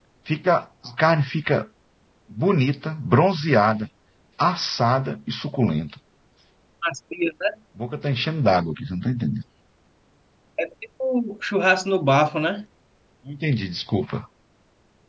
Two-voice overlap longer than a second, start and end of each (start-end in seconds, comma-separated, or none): none